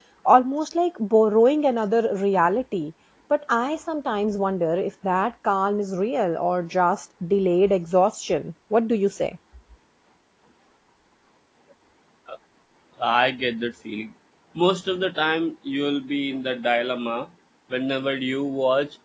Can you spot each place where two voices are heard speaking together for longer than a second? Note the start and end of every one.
none

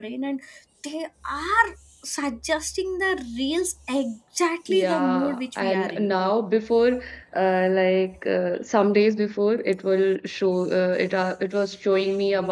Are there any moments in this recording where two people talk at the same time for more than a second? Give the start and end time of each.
4.7-6.0

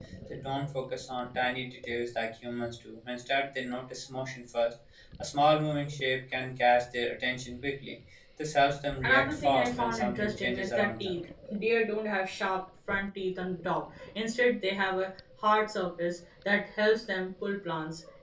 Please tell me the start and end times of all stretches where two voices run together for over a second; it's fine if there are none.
9.0-11.1

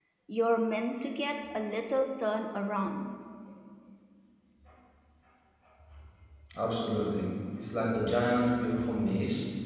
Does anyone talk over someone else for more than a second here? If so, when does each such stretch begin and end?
none

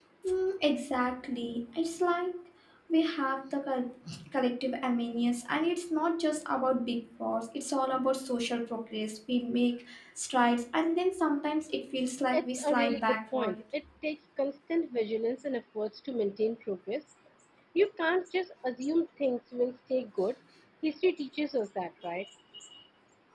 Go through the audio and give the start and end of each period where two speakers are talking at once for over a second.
12.3-13.6

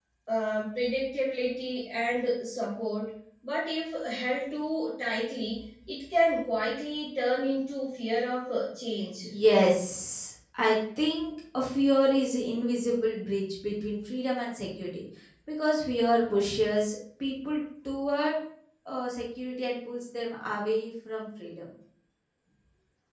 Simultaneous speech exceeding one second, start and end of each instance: none

